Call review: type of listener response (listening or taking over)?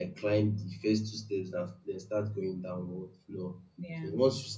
listening